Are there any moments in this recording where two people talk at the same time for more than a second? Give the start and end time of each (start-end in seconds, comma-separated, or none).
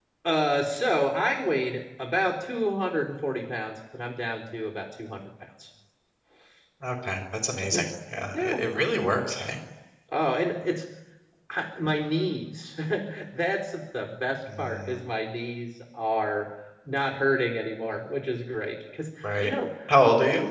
none